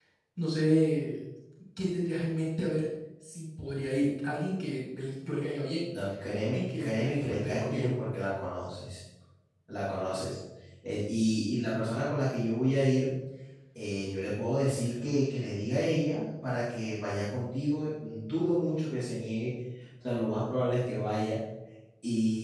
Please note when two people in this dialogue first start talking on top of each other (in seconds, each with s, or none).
6.5 s